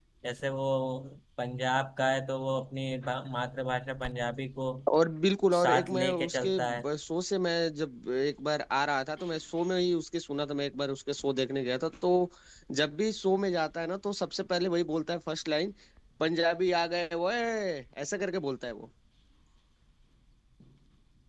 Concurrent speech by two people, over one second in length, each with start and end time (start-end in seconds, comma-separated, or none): 5.5-6.8